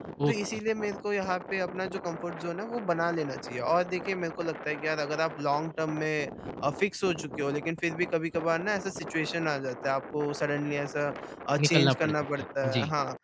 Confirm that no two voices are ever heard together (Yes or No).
No